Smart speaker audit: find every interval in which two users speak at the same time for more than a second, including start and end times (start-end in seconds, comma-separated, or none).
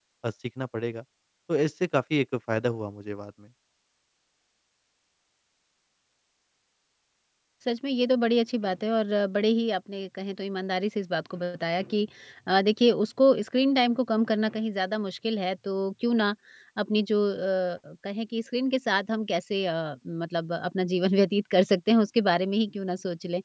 none